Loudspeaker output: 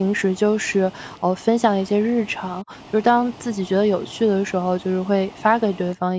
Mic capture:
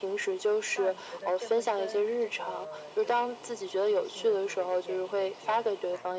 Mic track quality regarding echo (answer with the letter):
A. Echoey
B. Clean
A